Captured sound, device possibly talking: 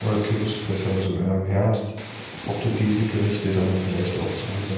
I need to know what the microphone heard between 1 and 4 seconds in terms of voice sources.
user only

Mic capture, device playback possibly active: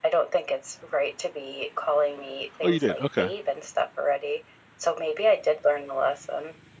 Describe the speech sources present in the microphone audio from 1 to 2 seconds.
echo only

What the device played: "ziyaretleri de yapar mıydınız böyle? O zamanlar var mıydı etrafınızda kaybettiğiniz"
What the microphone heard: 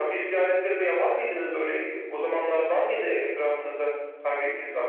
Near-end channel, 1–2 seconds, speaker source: echo only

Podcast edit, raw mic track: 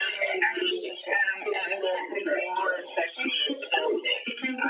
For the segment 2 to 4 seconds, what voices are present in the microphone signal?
echo only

